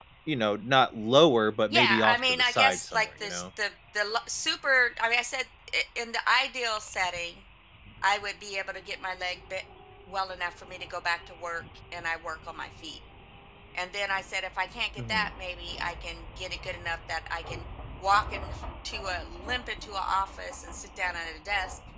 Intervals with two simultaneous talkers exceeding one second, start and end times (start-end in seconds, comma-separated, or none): 1.7-3.4